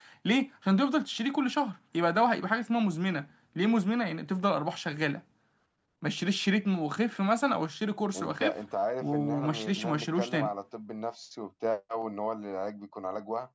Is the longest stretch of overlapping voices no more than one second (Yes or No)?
No